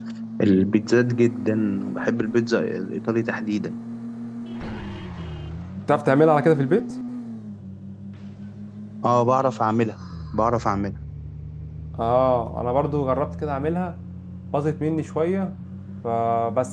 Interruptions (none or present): none